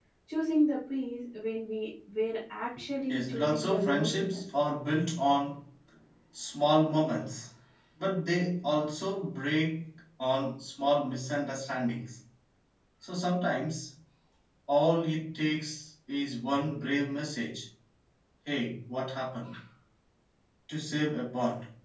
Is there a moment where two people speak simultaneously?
Yes, from 3.1 s

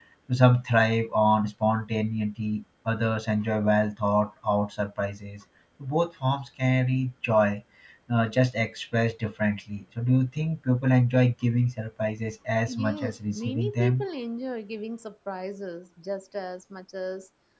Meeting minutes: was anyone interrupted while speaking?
Yes, from 12.7 s

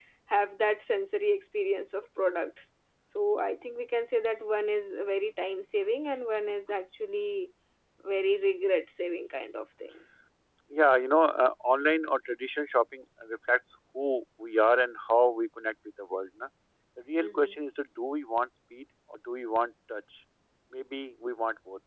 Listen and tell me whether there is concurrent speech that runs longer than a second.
No

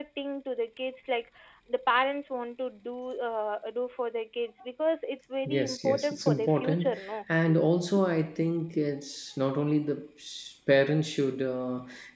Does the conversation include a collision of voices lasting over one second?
Yes, from 5.5 s

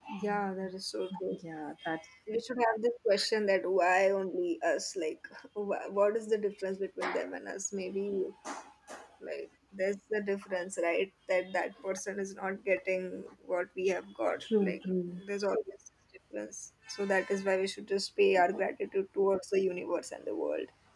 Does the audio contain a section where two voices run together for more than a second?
No

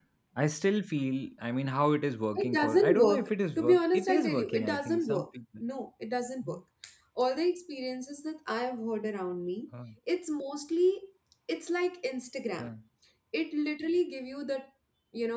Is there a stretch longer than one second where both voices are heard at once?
Yes, from 2.4 s

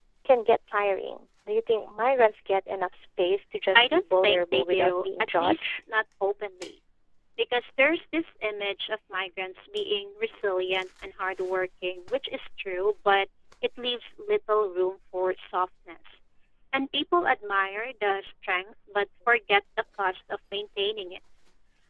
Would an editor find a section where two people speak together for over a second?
Yes, from 3.7 s

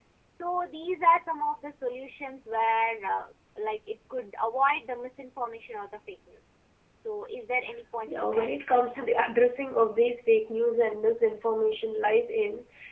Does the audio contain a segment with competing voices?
Yes, from 8.1 s

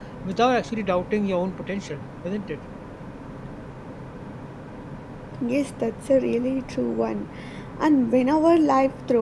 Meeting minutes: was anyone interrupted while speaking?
No

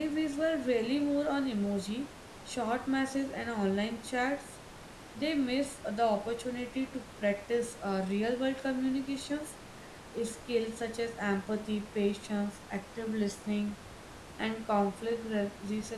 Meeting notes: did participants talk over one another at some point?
No

